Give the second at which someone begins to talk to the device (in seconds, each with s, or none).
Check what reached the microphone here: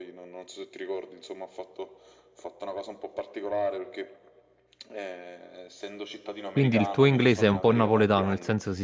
6.5 s